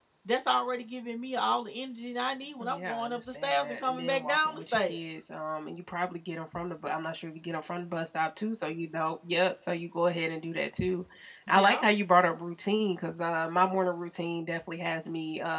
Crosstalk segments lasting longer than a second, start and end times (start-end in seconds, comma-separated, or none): 2.6-5.0